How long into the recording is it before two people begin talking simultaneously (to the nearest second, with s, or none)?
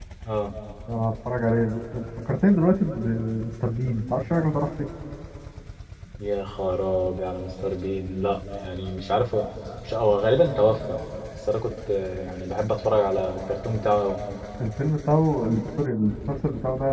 none